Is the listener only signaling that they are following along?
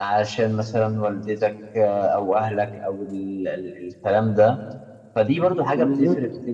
Yes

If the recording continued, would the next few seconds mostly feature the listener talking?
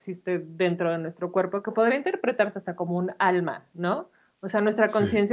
No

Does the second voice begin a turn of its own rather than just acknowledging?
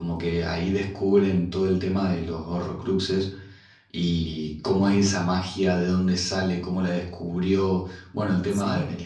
No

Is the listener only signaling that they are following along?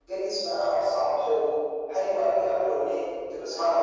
Yes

